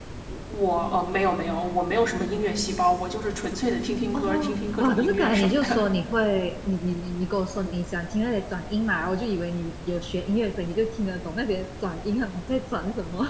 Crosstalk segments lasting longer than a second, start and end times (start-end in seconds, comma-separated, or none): 4.1-5.8